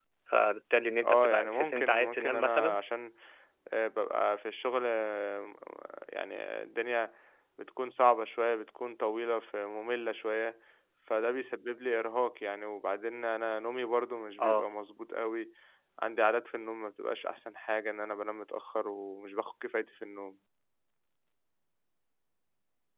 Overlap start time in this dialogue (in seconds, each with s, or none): 1.0 s